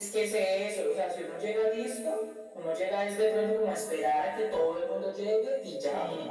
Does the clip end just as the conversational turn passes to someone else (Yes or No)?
Yes